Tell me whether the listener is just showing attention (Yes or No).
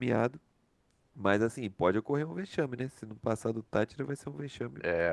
No